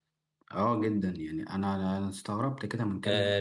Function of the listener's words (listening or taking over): taking over